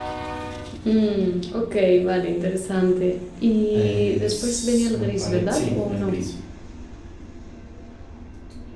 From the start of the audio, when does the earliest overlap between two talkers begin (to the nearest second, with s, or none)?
4 s